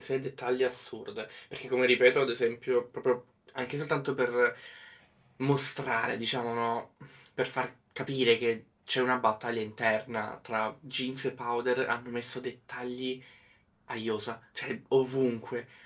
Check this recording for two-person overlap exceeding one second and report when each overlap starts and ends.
none

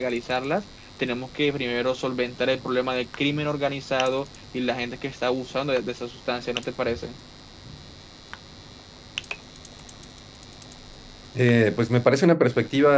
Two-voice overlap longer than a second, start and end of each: none

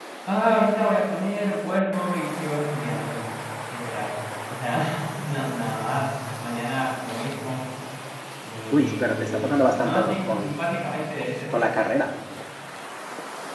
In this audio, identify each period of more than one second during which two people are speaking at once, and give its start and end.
8.7-10.6

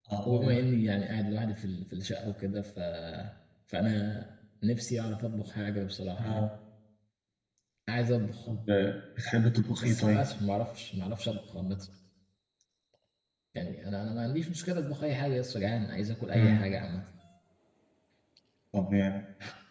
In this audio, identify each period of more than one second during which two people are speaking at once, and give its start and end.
none

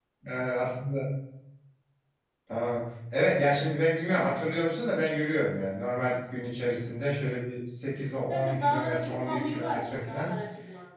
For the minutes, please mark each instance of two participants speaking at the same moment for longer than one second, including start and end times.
8.3-10.4

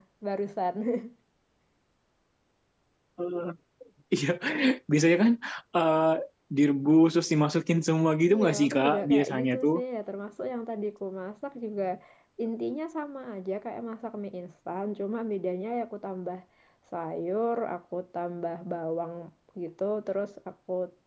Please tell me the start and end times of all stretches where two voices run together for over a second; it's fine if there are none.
8.3-9.7

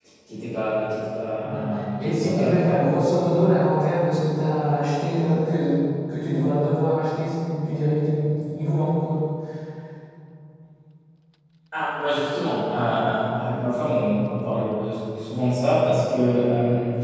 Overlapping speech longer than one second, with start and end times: 1.4-2.8

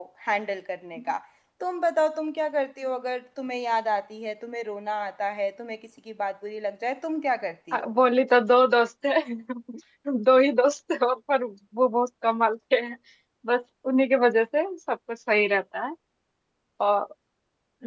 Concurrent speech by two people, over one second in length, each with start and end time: none

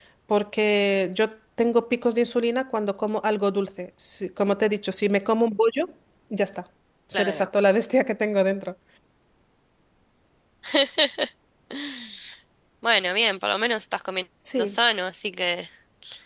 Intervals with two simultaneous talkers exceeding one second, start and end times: none

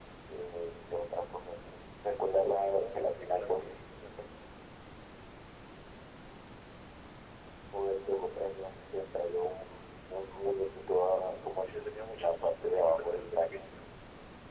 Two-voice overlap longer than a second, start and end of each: 2.4-3.7, 11.6-13.6

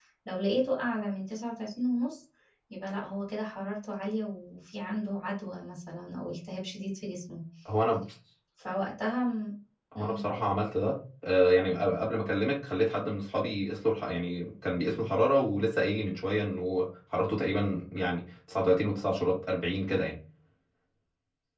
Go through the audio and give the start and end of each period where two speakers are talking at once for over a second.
none

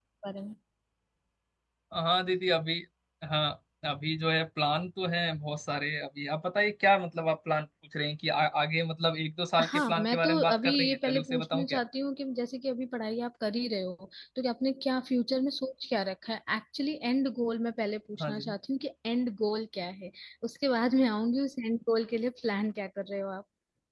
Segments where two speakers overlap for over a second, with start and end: 9.6-11.8

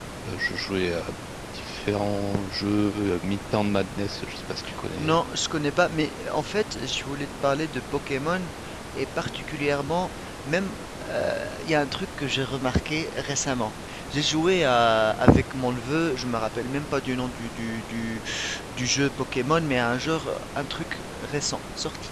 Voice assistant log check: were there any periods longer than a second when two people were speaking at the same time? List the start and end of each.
none

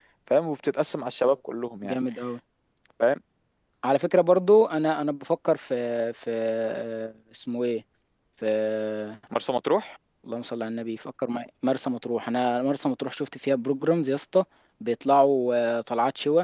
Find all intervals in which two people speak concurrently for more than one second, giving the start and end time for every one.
none

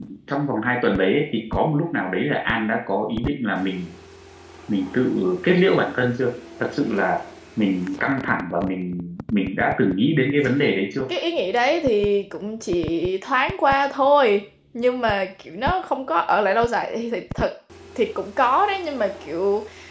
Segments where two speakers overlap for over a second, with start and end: none

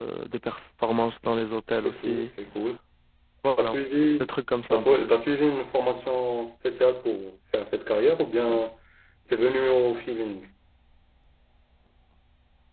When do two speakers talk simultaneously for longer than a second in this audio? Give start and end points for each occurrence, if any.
none

